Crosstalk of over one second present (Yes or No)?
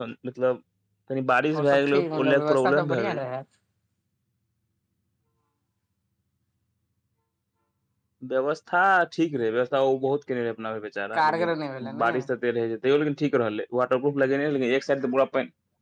Yes